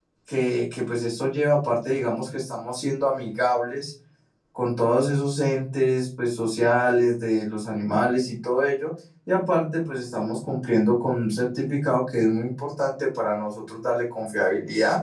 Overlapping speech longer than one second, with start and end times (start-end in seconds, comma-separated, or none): none